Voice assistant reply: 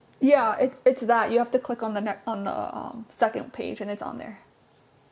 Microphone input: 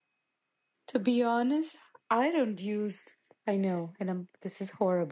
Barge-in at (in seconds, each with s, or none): 0.9 s